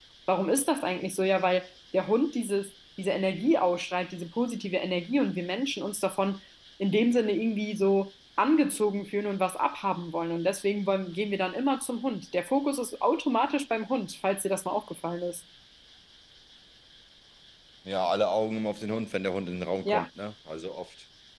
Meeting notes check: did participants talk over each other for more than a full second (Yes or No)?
No